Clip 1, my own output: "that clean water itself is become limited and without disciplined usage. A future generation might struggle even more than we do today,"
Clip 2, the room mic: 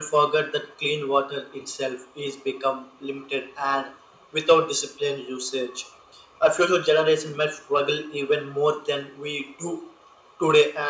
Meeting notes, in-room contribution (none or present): none